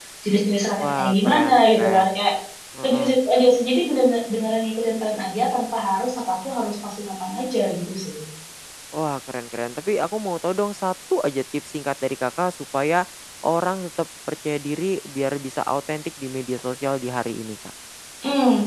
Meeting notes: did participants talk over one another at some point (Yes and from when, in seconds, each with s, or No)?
Yes, from 0.8 s